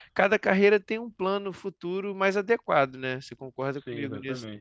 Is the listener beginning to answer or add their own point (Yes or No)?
Yes